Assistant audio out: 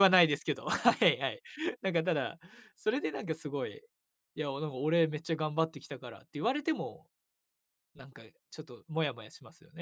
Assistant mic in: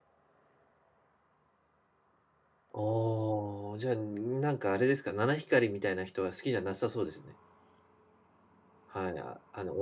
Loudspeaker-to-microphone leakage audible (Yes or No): No